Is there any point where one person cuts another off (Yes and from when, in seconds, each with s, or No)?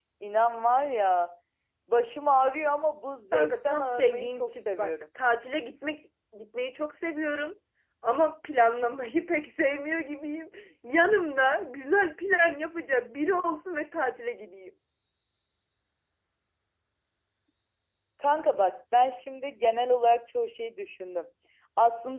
Yes, from 3.3 s